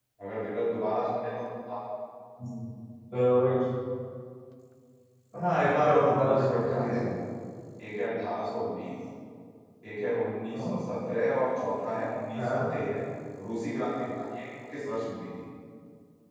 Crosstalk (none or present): present